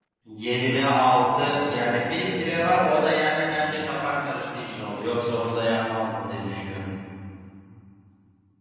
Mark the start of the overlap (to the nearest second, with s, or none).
1 s